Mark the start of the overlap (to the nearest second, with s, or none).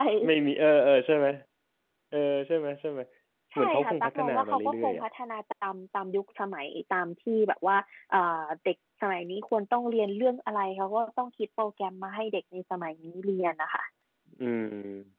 4 s